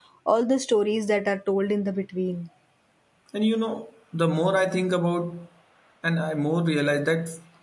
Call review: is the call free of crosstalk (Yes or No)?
Yes